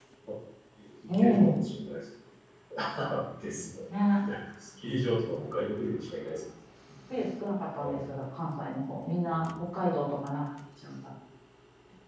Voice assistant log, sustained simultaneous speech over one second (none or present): none